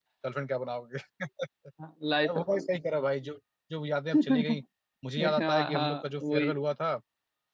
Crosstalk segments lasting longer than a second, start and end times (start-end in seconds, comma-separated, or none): 5.2-6.5